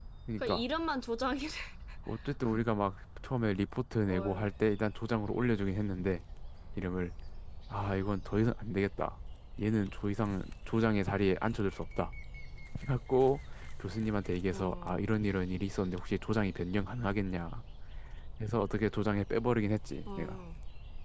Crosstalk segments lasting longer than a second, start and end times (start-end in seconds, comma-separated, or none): none